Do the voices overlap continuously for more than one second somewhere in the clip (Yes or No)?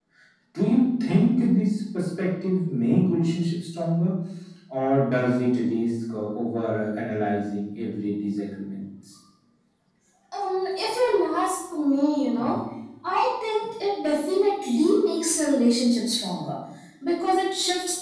No